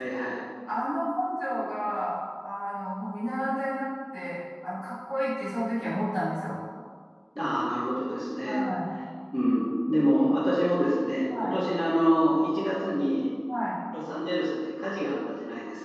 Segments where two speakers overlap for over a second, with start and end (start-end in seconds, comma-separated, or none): none